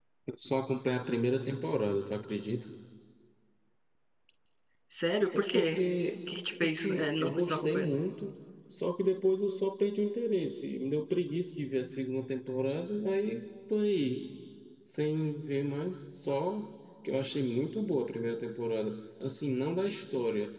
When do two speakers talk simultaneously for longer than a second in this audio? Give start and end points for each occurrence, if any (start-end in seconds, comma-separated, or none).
6.6-7.9